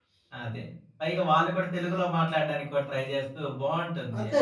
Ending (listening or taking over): taking over